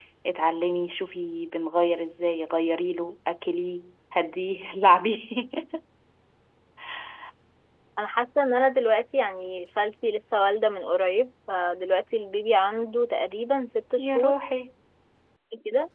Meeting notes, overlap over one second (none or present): none